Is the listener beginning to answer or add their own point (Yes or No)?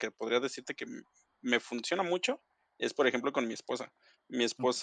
No